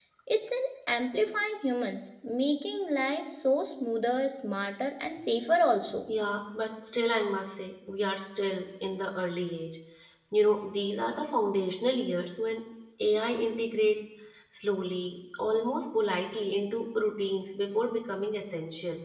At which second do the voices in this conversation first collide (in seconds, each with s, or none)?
none